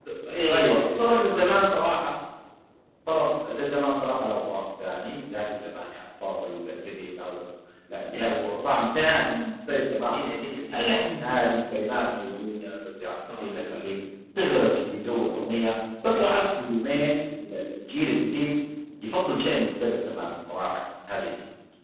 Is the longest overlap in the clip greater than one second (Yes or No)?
Yes